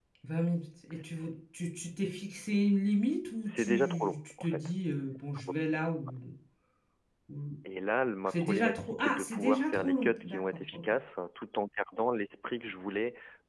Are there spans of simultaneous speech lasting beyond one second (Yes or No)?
Yes